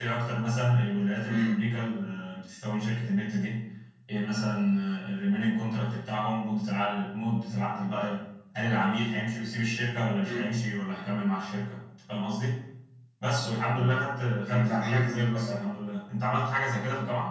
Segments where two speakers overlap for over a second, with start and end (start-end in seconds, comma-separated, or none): 14.5-15.7